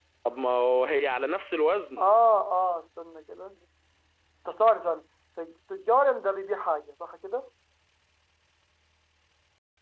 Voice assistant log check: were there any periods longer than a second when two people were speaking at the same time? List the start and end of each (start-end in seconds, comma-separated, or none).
none